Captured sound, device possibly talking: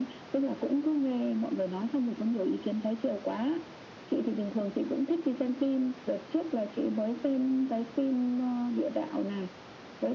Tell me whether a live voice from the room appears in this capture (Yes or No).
No